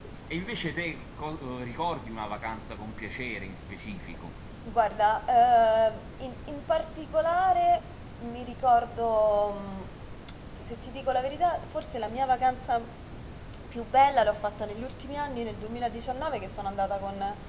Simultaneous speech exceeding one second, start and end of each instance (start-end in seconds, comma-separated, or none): none